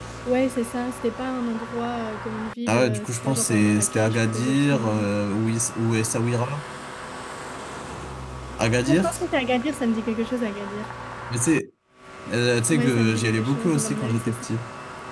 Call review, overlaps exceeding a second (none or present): present